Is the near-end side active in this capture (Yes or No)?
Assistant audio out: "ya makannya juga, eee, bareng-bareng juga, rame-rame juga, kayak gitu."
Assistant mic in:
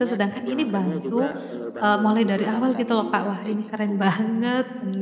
Yes